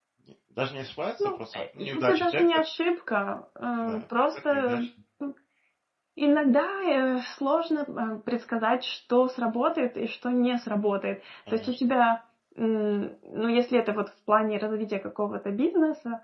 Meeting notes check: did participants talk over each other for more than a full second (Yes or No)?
Yes